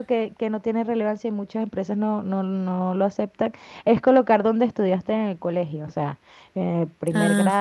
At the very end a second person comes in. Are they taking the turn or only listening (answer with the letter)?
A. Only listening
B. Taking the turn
A